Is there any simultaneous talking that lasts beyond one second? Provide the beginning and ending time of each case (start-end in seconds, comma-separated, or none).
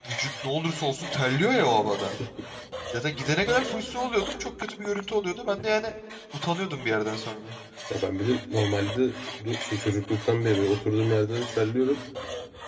none